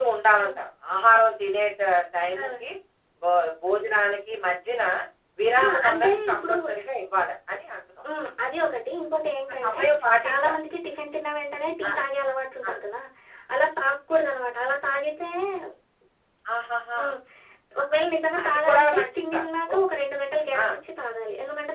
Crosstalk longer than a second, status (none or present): present